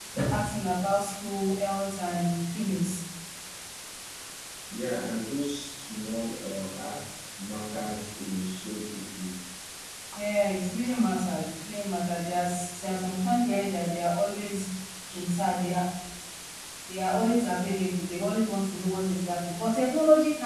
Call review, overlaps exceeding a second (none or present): none